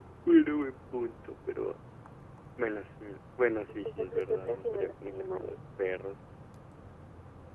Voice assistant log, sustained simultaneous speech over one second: present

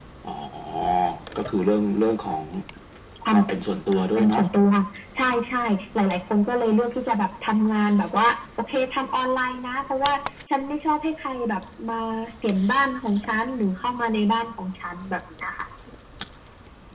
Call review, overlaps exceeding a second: none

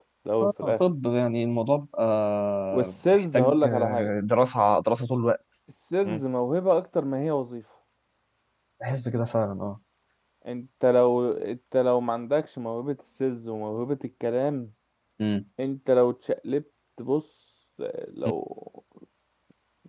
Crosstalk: present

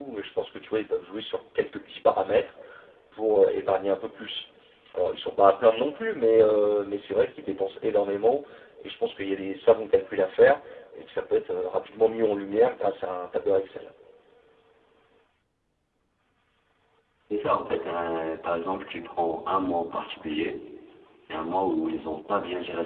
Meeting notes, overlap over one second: none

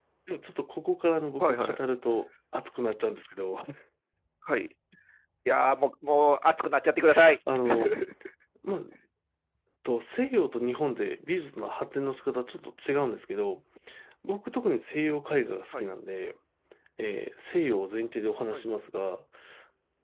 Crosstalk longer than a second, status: none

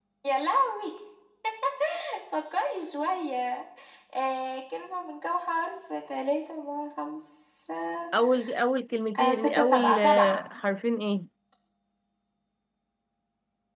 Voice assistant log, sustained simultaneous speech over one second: present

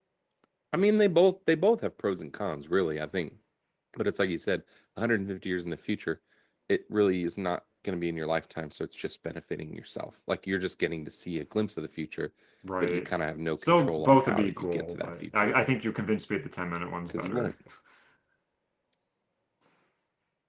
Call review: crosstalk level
present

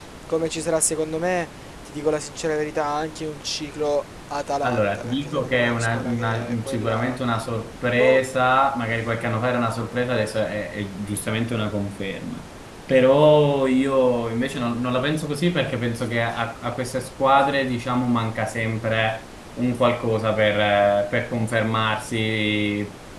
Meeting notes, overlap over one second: present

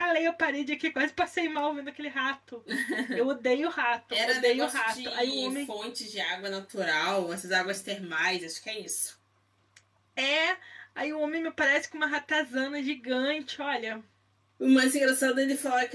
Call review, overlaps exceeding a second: present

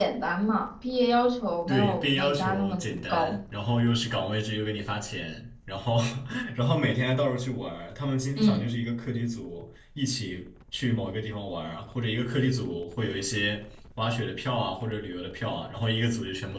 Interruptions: present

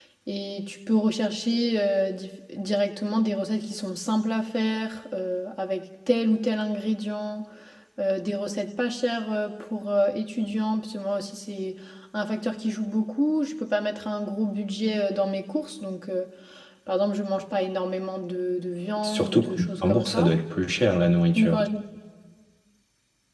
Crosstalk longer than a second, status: present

